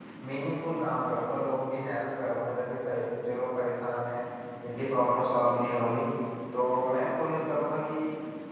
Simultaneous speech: No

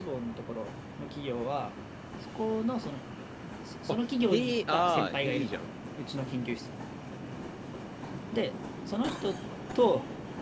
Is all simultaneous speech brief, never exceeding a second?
No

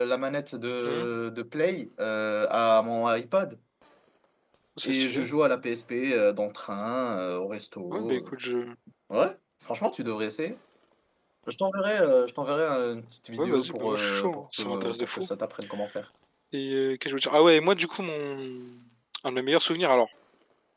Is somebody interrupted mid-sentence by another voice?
Yes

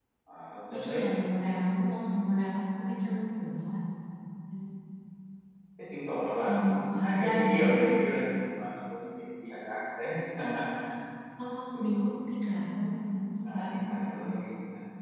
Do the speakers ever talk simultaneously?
Yes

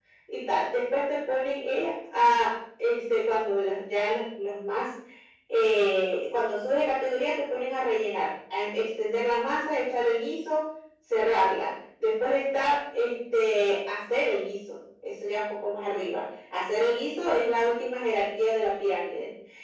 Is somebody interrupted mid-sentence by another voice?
No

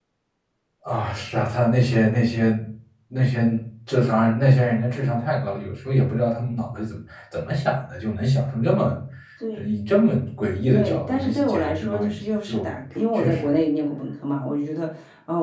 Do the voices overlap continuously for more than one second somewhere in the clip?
Yes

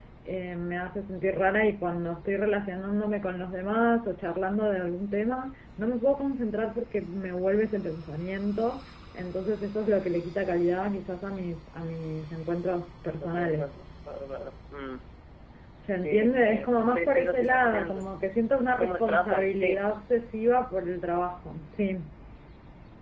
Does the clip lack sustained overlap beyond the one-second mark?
No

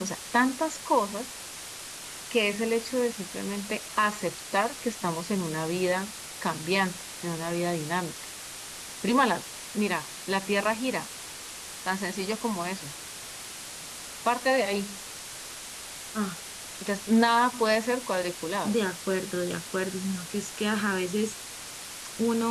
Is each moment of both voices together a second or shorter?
Yes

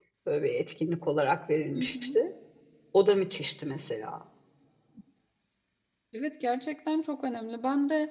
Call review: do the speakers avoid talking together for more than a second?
Yes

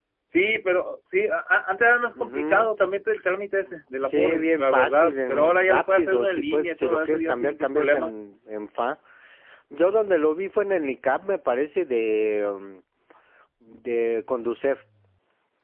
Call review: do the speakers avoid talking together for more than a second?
No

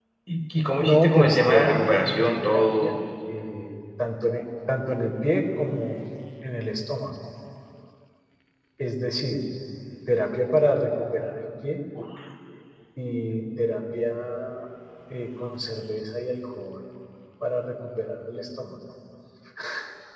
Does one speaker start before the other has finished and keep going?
Yes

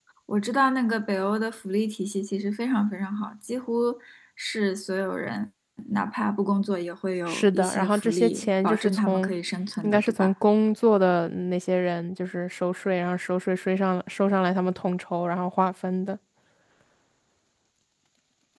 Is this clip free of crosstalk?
No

